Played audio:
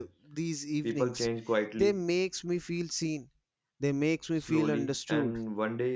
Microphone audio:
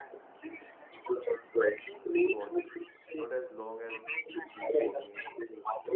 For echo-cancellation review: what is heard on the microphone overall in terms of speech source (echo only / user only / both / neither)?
both